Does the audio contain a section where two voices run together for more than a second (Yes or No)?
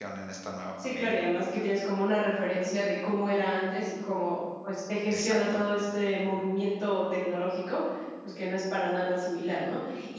No